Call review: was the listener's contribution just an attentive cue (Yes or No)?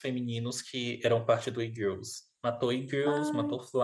Yes